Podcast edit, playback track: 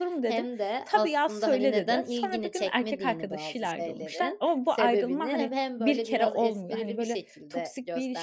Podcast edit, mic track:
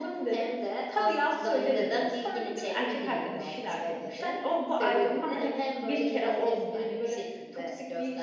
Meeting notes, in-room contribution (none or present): none